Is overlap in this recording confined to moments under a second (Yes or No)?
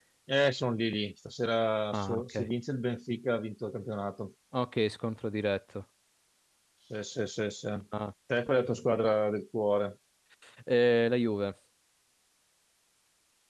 Yes